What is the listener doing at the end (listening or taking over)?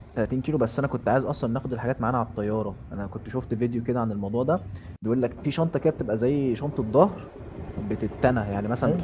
listening